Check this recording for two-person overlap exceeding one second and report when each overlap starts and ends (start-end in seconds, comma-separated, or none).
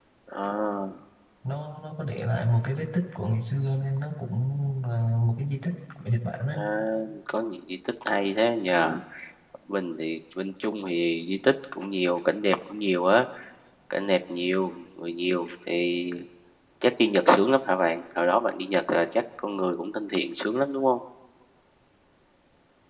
none